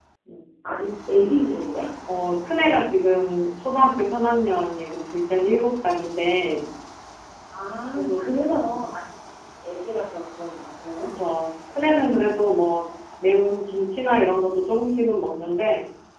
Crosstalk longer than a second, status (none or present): none